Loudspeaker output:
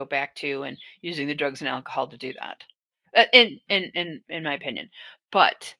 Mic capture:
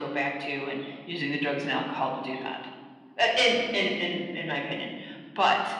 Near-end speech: none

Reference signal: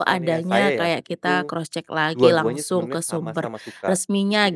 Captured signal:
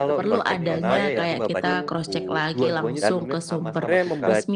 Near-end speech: present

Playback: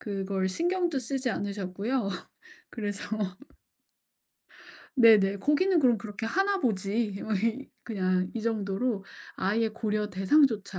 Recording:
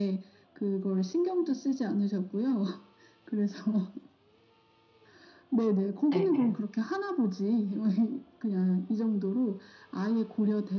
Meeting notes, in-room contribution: present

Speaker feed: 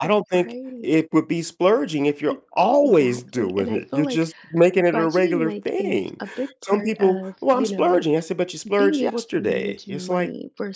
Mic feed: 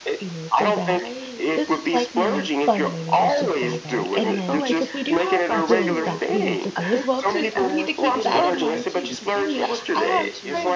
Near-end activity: present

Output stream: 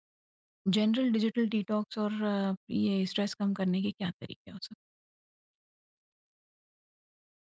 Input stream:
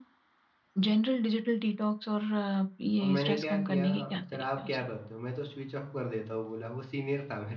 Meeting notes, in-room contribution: present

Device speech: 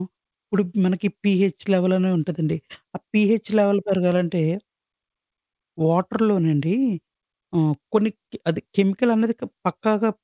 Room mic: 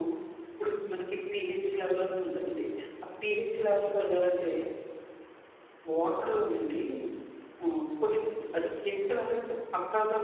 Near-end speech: none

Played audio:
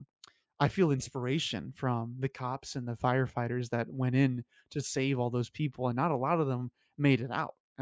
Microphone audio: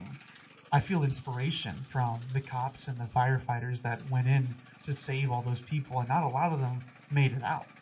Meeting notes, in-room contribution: none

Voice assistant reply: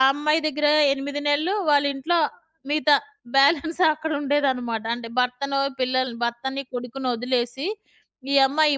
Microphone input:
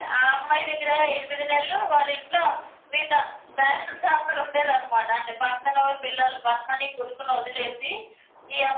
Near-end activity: none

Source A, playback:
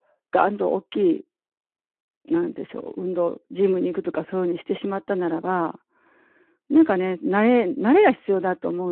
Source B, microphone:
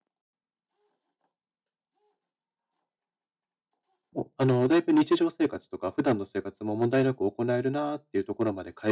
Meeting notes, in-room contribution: present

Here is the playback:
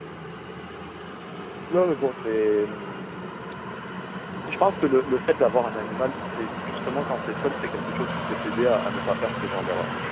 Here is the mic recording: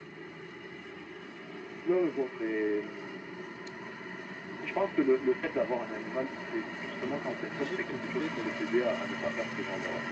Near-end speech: present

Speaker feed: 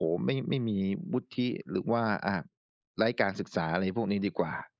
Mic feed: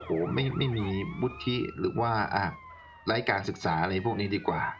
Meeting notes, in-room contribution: none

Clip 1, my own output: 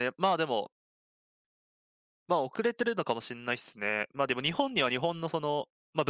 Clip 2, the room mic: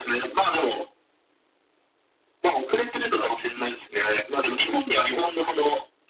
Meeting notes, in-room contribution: none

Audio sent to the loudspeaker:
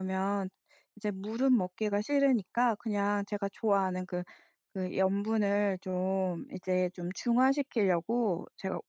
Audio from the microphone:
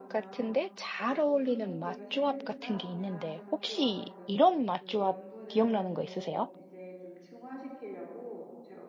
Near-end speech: present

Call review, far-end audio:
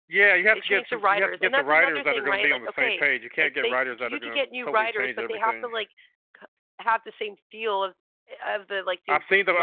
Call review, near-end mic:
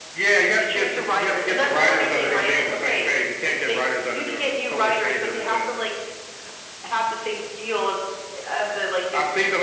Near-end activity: none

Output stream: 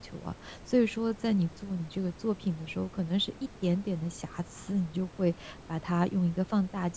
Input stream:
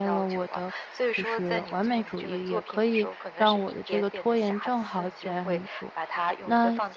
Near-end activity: present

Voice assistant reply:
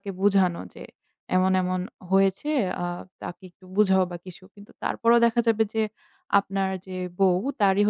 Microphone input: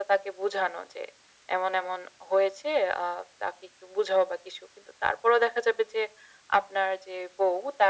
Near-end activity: none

